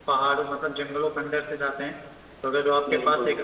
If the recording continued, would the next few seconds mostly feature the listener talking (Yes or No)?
No